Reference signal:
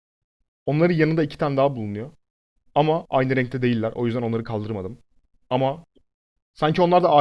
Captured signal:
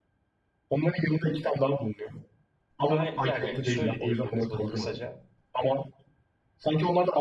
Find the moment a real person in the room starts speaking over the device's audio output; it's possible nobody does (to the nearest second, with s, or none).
3 s